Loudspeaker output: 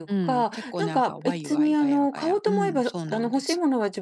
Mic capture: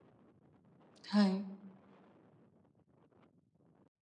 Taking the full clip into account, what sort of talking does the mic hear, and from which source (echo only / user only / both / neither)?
user only